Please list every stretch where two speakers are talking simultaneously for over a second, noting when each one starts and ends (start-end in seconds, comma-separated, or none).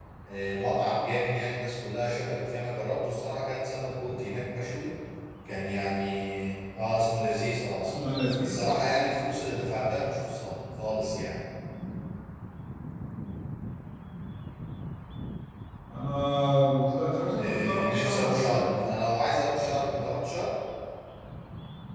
17.3-18.7